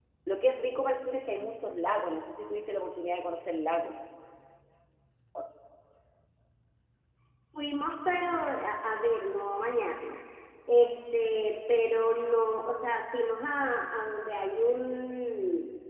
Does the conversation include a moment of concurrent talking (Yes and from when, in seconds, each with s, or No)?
No